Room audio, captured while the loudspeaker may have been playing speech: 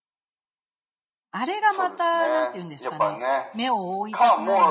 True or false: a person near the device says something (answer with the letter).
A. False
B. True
B